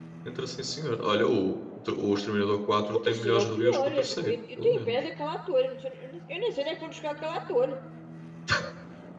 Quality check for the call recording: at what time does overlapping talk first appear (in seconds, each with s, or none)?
2.8 s